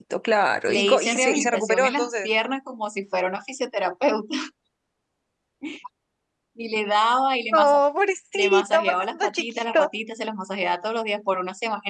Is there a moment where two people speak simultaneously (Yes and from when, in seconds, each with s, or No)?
Yes, from 0.7 s